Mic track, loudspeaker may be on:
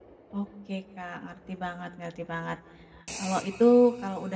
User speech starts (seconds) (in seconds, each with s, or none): 0.3 s